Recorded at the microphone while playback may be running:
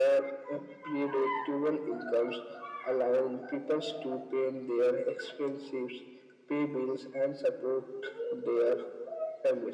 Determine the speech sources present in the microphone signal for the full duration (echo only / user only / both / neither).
echo only